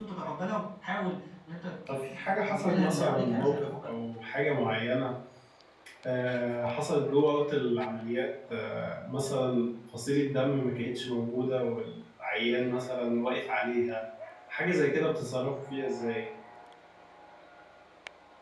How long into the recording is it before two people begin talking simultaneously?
1.9 s

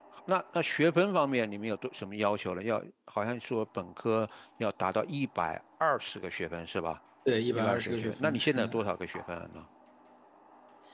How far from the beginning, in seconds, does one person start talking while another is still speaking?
7.5 s

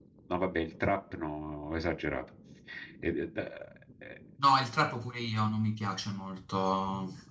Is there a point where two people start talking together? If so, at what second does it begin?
none

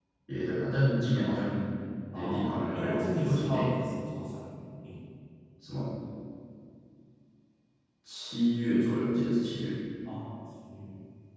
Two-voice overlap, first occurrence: 2.1 s

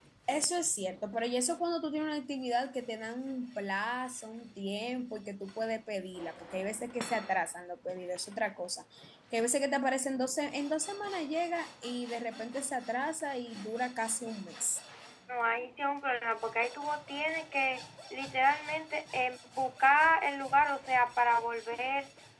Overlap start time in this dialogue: none

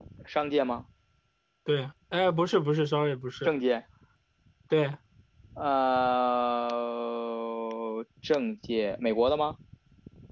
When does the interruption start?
none

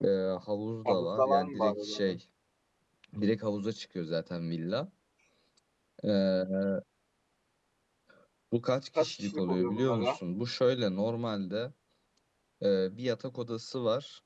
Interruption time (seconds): 0.8 s

